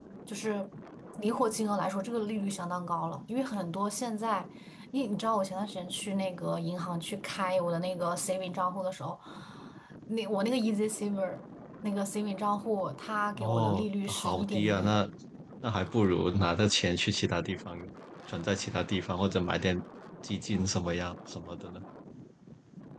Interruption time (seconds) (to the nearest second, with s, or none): 13 s